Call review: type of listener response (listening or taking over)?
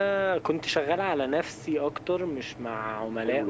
taking over